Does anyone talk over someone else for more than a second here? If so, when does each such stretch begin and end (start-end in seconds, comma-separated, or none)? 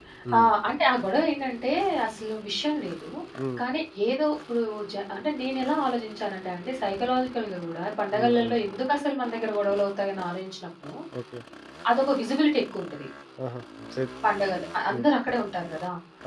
none